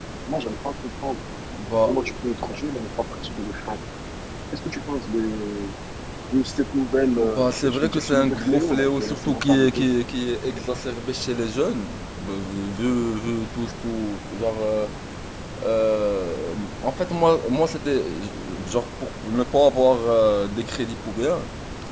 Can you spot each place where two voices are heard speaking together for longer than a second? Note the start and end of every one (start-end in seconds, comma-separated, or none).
7.2-9.9